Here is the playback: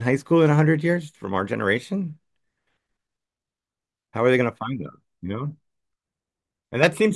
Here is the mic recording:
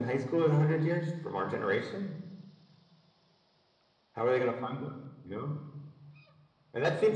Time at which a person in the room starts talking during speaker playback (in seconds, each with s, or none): none